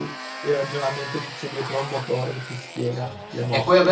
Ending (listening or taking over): taking over